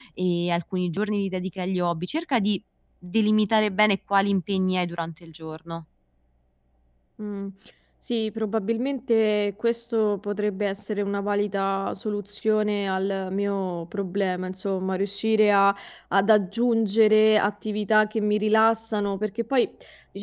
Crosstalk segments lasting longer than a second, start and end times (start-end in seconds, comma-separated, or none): none